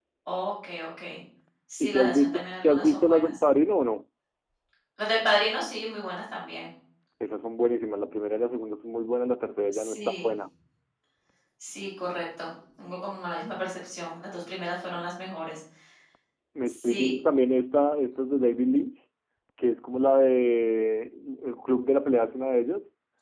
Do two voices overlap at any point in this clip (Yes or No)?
Yes